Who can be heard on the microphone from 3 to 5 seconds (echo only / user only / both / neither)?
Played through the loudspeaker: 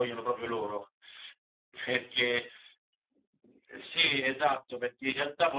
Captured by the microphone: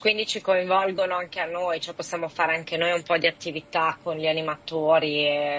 user only